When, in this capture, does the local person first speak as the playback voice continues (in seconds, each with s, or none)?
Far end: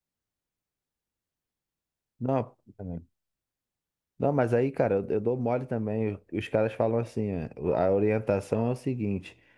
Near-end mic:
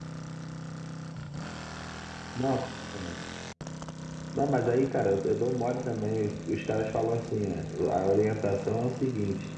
none